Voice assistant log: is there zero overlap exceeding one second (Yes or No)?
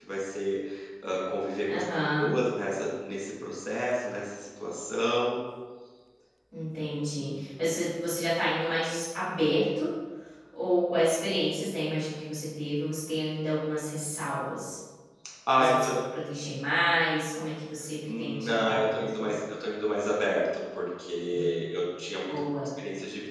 No